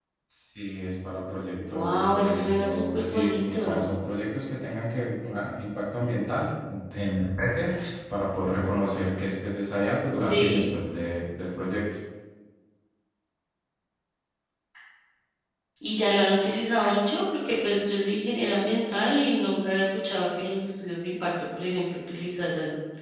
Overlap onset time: 1.7 s

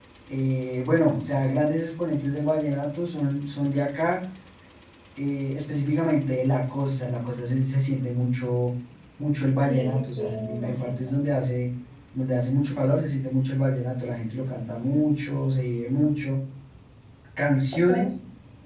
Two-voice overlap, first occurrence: 9.7 s

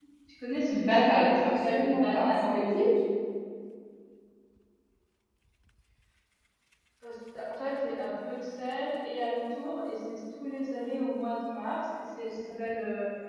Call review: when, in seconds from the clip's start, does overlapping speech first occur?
0.7 s

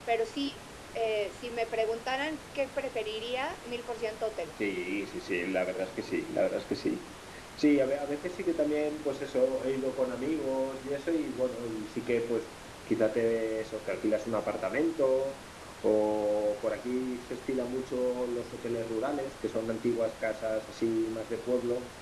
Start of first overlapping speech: none

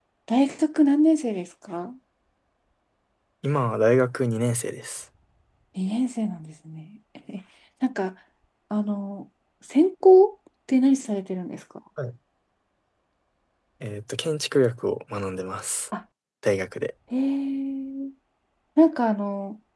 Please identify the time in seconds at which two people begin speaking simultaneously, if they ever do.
none

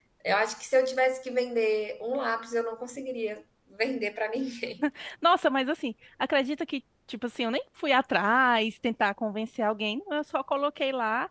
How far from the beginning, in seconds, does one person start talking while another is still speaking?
none

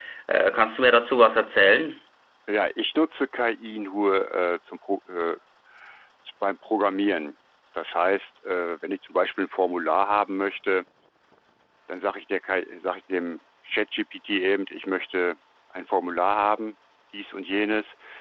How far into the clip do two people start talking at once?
none

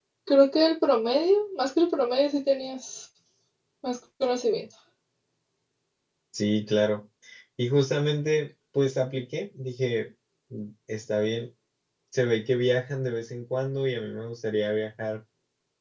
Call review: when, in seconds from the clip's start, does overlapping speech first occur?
none

